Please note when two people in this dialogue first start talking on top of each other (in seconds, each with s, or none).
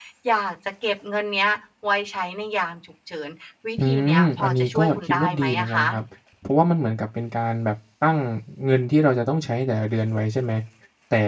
3.8 s